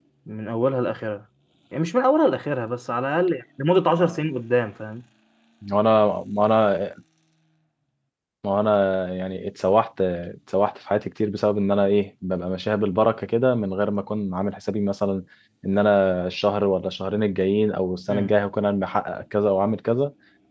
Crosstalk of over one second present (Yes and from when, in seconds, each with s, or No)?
No